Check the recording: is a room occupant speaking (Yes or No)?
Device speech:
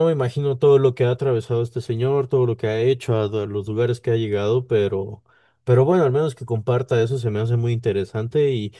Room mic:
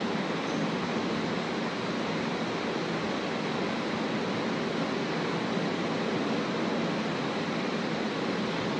No